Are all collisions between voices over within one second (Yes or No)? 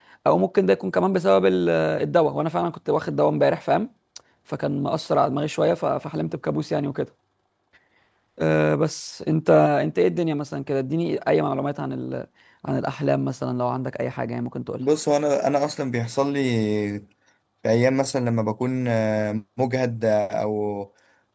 Yes